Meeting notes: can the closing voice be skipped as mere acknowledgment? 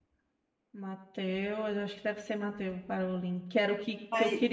Yes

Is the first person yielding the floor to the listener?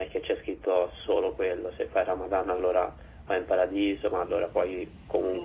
No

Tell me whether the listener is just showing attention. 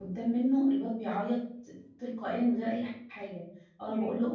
Yes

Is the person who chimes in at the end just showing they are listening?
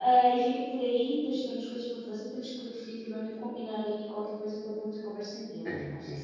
No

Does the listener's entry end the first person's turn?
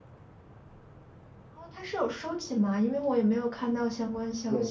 Yes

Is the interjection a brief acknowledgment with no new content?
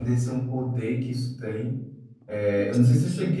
Yes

